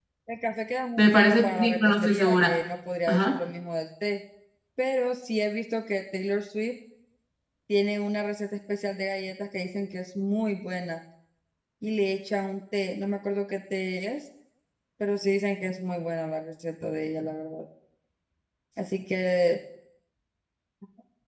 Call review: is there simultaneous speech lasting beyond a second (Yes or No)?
Yes